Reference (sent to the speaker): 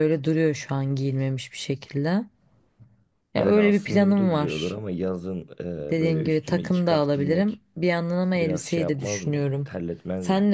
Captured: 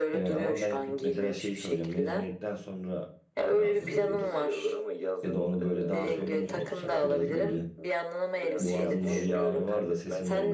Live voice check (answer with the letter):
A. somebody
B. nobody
A